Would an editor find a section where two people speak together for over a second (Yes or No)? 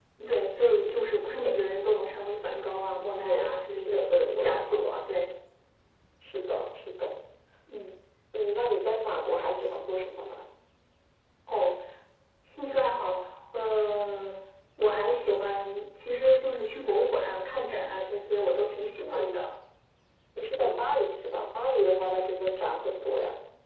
Yes